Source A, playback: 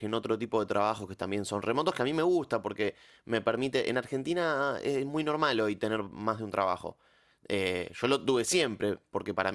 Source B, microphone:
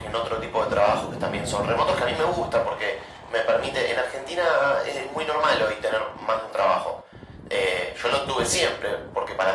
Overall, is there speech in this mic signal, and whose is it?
echo only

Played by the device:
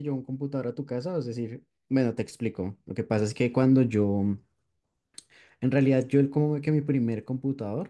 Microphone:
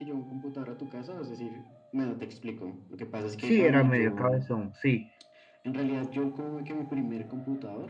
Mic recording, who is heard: both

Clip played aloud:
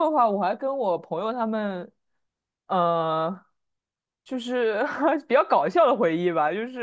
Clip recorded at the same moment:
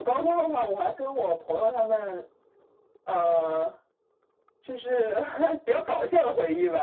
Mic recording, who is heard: echo only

